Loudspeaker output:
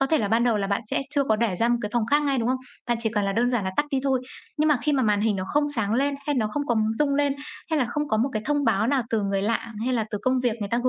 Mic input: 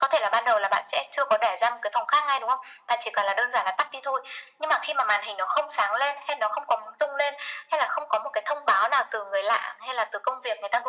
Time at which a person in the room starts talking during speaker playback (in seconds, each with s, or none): none